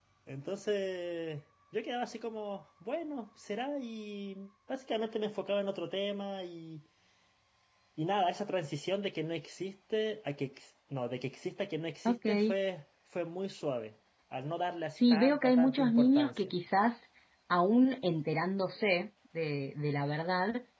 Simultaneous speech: Yes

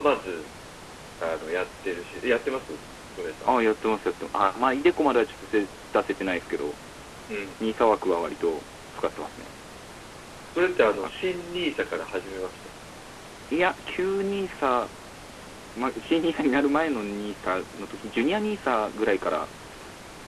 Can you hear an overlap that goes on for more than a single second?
No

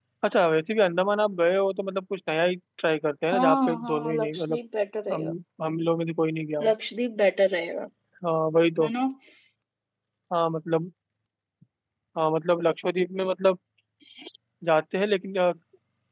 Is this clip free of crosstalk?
No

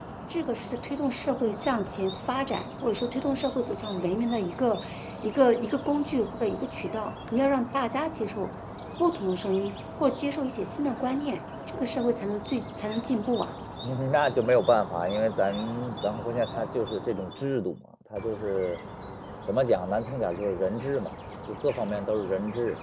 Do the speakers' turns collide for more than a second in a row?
No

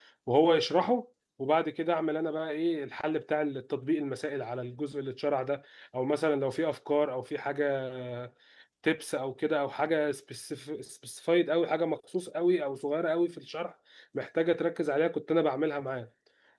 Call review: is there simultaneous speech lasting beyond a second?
No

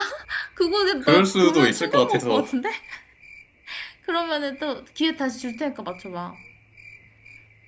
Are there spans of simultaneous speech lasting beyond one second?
Yes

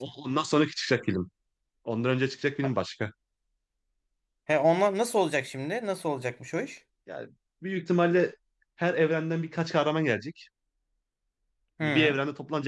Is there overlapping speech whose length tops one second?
No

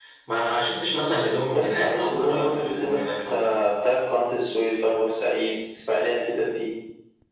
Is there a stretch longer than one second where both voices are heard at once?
Yes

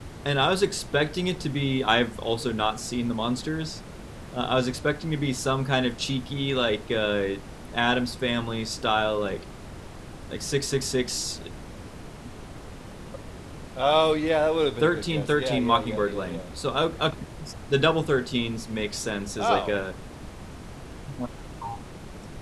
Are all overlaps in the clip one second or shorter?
No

